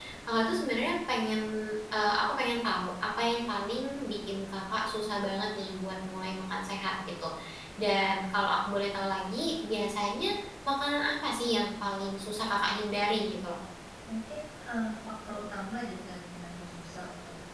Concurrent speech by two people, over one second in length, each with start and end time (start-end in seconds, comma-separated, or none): none